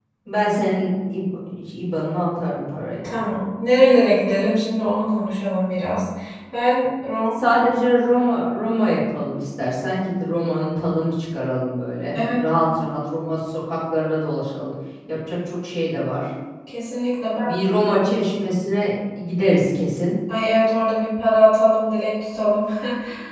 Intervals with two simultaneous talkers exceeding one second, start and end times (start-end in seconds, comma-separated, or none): none